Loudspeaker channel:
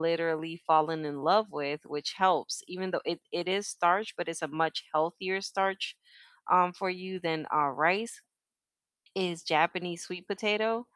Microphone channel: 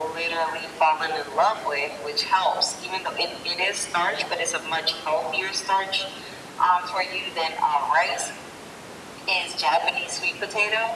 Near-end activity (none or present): none